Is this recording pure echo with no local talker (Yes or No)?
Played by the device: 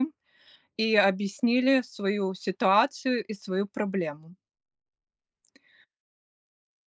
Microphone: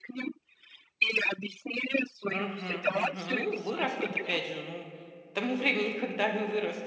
No